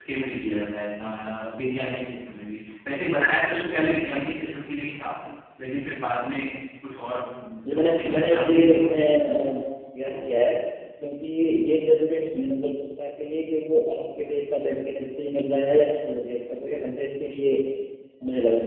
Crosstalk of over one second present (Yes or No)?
Yes